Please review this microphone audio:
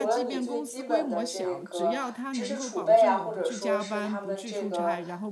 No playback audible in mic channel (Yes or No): No